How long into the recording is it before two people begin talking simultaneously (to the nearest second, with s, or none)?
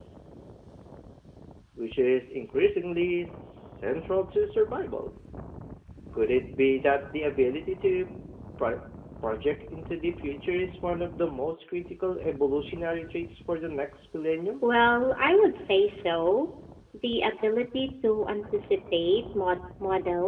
none